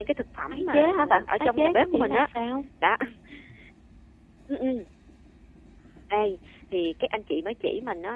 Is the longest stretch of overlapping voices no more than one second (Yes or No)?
No